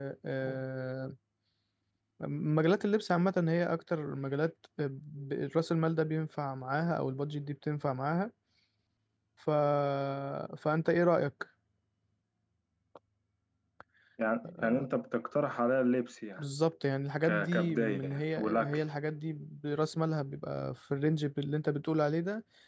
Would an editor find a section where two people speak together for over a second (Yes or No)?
Yes